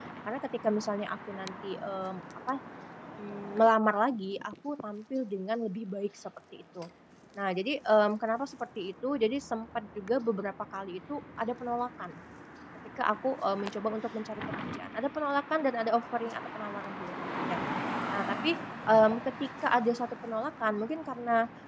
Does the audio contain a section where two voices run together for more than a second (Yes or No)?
No